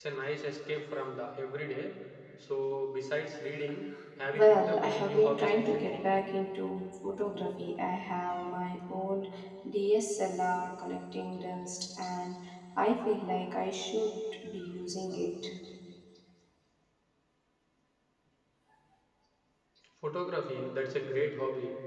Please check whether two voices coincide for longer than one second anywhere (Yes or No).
Yes